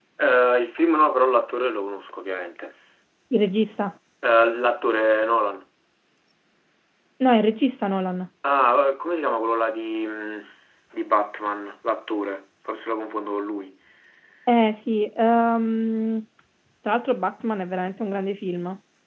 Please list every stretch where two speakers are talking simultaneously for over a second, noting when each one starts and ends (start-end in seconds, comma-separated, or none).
none